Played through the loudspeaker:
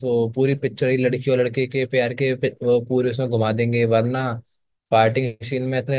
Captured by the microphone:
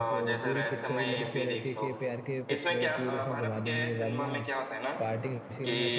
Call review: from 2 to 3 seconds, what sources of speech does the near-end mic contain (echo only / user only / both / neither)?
both